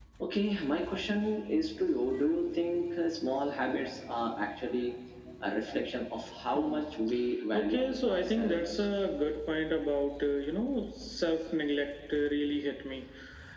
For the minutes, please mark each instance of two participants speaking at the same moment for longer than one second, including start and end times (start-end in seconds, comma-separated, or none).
7.5-8.9